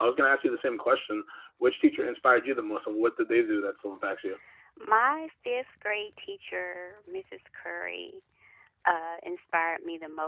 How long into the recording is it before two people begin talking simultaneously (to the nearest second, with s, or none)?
none